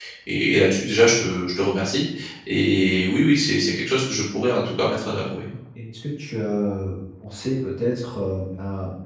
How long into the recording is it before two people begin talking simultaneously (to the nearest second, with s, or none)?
none